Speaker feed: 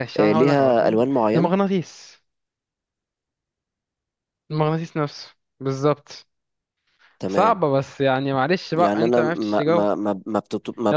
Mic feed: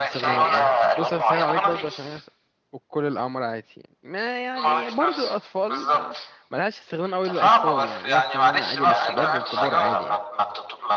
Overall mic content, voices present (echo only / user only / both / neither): both